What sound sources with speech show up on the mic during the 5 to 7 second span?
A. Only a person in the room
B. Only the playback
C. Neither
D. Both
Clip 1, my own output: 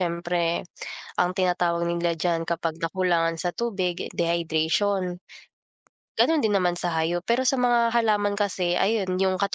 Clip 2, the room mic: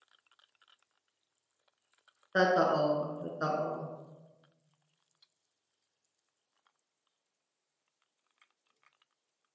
C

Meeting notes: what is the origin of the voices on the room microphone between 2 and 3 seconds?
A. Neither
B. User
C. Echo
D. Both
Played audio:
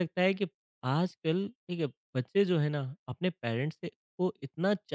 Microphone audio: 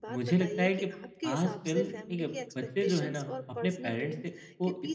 D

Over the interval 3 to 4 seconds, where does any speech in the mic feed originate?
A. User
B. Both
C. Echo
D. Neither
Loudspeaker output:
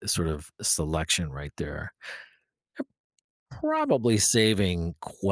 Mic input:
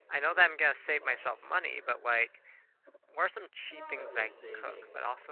B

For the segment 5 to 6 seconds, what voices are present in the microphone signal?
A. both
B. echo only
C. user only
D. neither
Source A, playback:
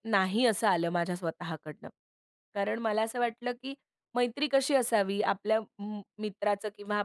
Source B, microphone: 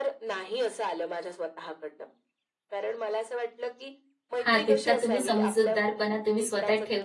A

